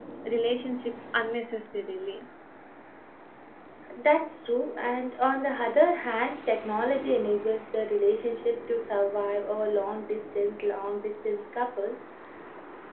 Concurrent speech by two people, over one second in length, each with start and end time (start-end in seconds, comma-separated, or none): none